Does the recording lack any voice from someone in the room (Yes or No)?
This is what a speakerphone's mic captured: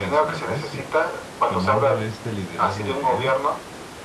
No